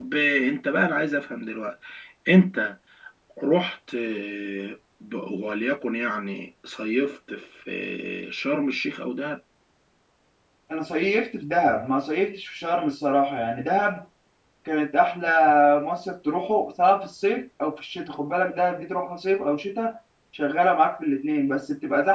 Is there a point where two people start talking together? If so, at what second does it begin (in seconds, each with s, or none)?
none